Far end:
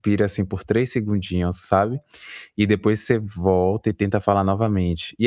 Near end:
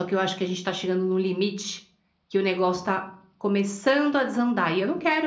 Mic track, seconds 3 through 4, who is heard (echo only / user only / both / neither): user only